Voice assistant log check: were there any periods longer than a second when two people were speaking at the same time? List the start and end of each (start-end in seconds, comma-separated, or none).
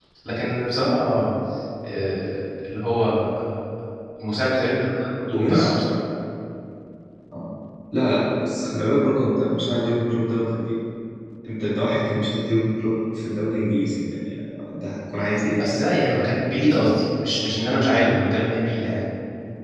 none